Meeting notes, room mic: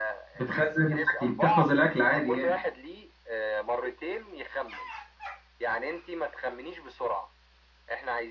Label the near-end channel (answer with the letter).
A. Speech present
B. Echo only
A